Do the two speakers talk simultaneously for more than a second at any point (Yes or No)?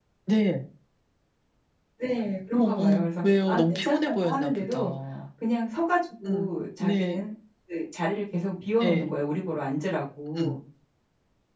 Yes